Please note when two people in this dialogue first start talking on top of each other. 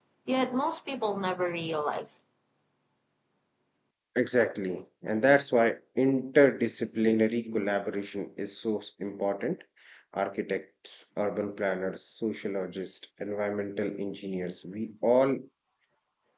none

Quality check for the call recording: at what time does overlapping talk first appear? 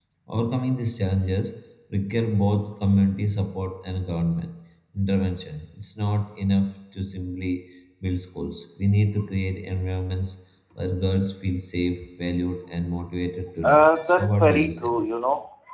14 s

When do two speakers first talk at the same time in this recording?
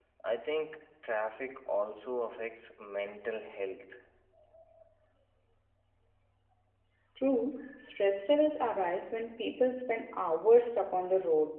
none

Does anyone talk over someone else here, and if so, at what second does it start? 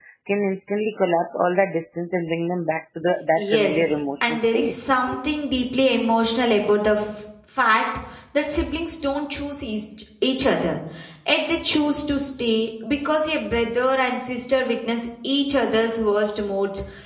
3 s

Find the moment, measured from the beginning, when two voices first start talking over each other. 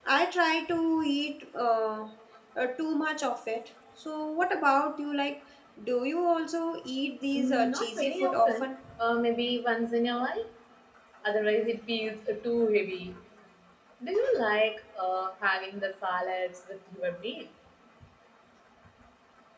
7 s

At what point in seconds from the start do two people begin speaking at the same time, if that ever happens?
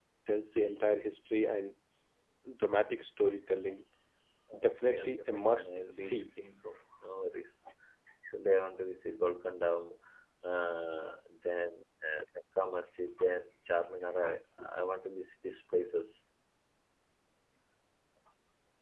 5 s

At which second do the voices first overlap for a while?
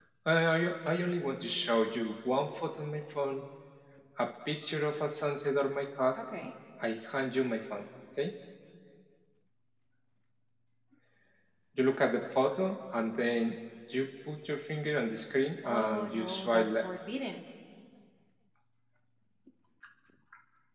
16 s

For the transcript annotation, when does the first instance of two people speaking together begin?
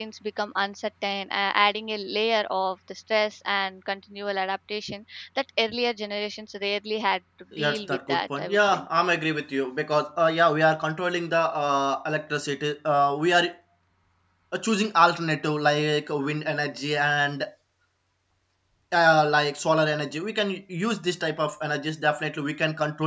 8 s

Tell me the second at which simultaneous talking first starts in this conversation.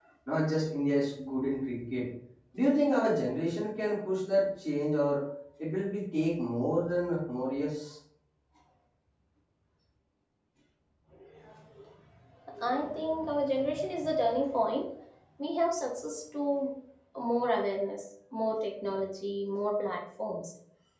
none

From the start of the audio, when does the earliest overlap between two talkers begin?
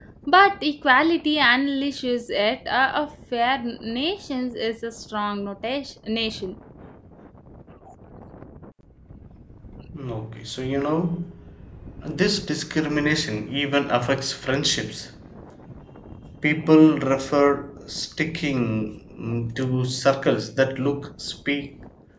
none

